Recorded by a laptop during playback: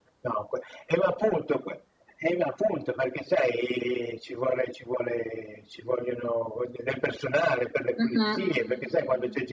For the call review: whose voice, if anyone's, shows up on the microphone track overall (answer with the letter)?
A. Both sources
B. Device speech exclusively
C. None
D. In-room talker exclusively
A